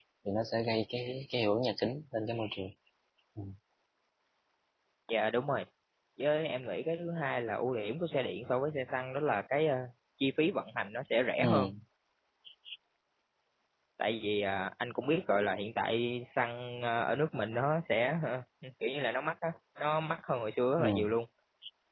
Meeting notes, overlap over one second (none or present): none